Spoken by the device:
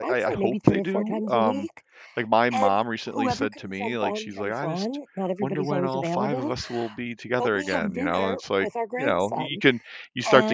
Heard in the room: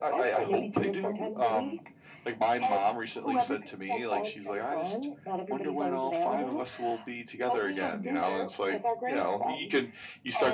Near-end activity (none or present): none